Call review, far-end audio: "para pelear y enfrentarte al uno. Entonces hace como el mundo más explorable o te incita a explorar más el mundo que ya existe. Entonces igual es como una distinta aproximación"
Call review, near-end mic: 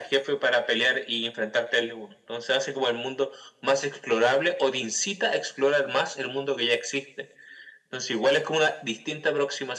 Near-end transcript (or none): none